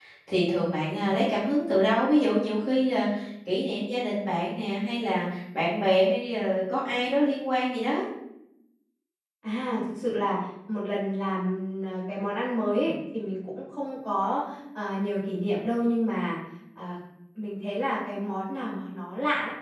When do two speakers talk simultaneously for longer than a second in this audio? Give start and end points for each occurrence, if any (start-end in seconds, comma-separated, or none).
none